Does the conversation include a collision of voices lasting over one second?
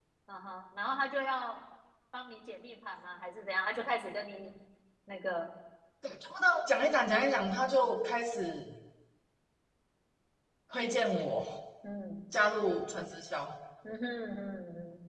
No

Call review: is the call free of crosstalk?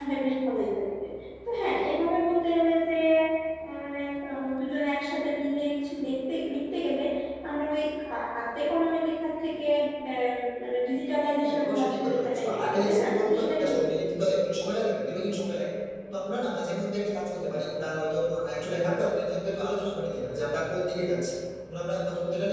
No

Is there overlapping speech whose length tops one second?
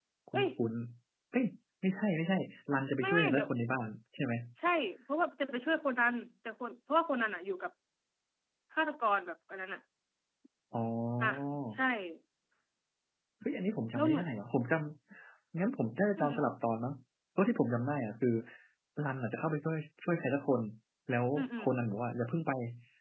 No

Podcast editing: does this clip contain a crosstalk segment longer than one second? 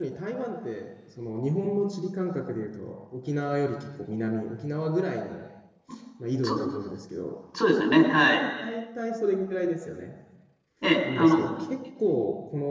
No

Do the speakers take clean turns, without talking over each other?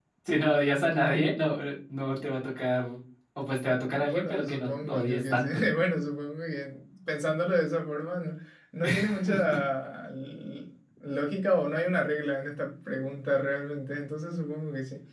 No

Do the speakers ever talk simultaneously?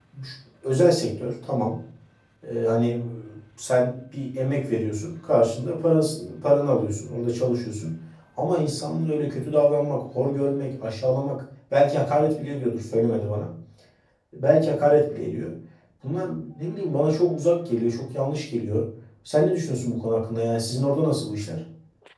No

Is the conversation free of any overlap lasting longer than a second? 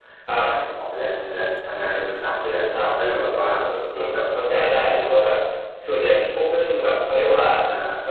No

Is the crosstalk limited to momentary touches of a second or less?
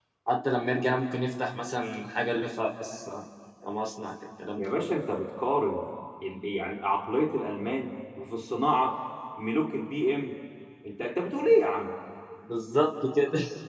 Yes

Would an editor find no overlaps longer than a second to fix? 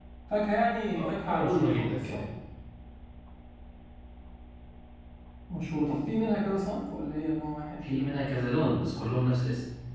No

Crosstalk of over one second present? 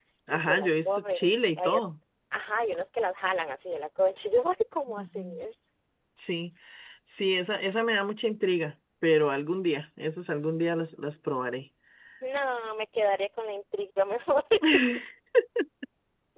Yes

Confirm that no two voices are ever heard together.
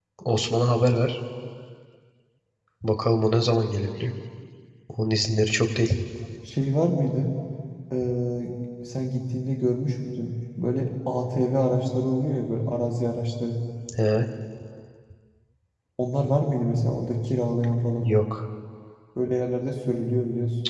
Yes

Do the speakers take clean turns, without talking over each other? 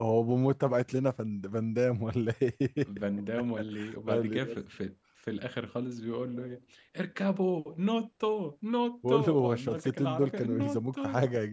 No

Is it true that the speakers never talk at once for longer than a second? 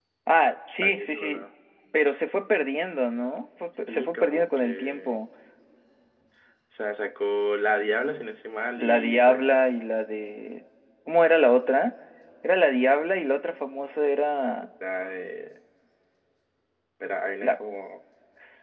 No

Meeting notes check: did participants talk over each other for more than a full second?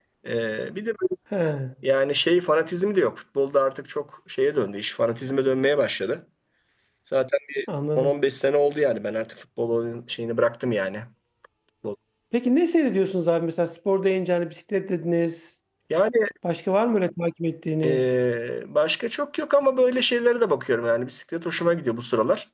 No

